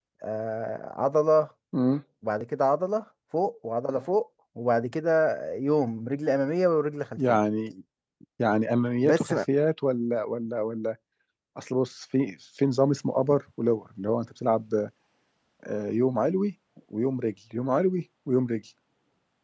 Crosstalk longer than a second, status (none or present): none